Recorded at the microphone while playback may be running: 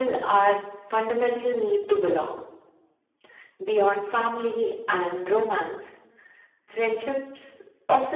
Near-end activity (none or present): none